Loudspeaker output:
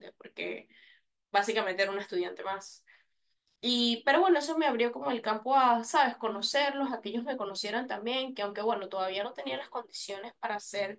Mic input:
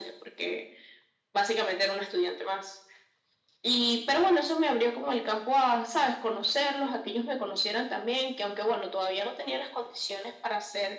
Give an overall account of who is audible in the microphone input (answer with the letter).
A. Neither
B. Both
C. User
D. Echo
D